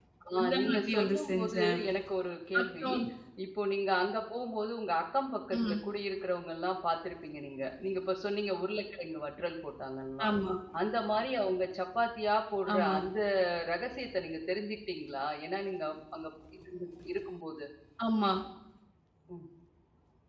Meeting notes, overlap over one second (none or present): present